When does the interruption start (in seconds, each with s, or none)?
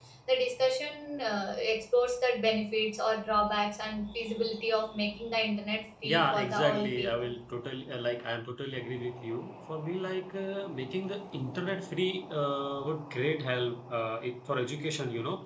6.0 s